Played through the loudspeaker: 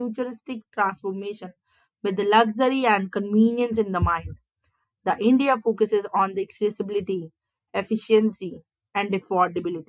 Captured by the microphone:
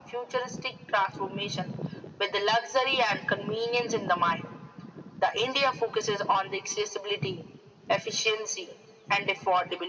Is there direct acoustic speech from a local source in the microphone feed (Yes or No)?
No